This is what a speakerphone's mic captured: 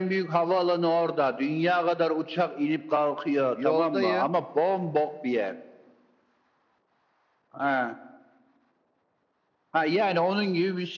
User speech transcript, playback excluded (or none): Yoldayım.